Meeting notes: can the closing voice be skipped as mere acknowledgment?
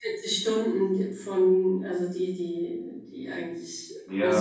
No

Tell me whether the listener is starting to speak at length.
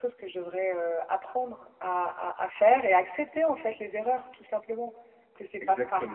No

